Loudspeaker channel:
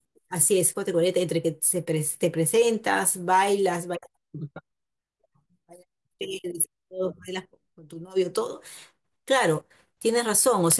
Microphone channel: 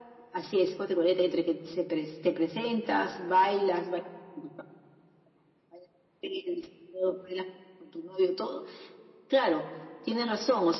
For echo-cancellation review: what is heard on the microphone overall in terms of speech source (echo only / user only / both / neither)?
echo only